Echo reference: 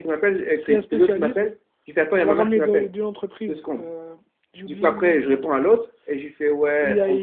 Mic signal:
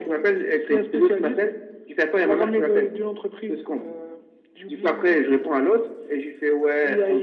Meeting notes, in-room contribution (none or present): none